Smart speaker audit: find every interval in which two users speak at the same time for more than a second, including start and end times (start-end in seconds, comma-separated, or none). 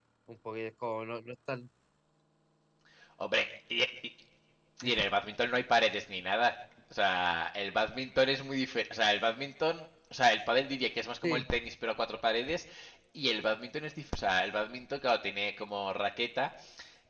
none